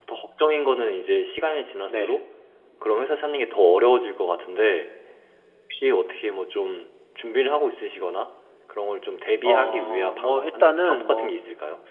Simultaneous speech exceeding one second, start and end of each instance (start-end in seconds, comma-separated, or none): 9.4-11.3